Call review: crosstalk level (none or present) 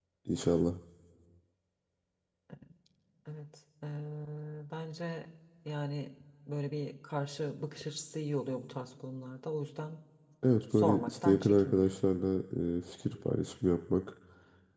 present